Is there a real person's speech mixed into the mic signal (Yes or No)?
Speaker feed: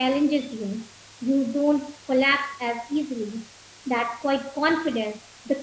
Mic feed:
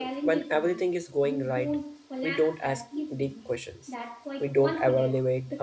Yes